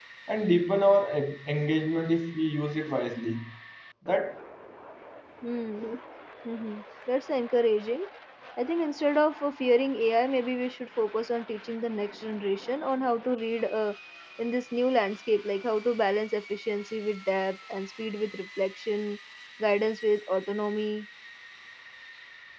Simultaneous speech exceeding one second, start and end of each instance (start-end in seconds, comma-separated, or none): none